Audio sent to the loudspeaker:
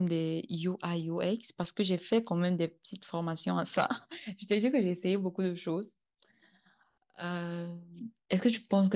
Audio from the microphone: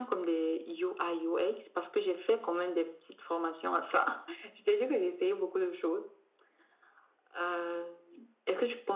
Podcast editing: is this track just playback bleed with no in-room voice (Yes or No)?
Yes